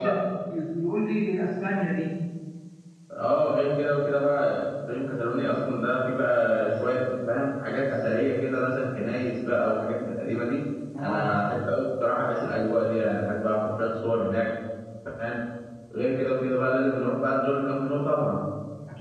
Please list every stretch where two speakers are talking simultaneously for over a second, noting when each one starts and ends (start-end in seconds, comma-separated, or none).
none